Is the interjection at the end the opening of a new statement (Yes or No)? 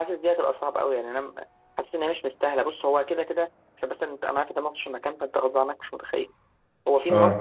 No